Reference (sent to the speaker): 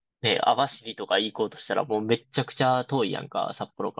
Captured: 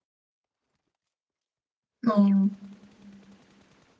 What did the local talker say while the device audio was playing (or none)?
うん。